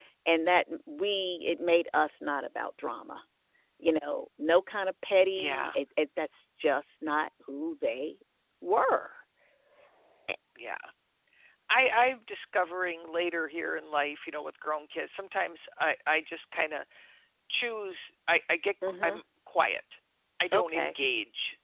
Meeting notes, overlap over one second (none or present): none